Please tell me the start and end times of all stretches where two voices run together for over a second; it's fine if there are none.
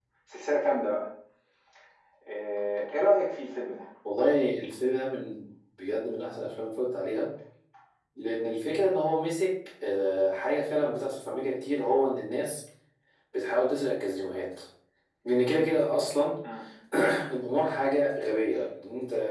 none

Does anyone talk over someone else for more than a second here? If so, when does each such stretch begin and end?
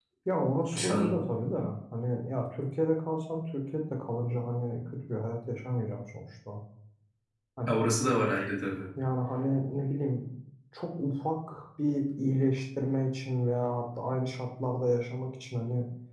none

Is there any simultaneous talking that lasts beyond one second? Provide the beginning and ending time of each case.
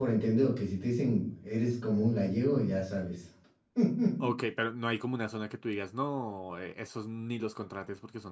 none

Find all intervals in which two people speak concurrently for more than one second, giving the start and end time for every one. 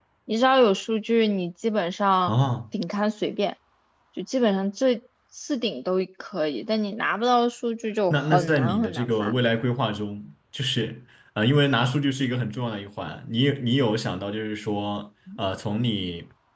8.1-9.3

